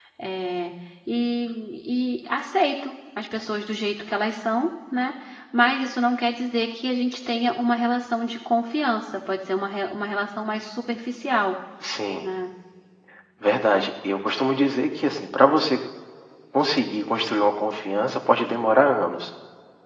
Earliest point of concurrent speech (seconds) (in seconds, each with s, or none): none